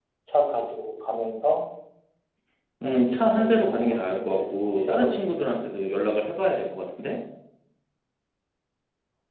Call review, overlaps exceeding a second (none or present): present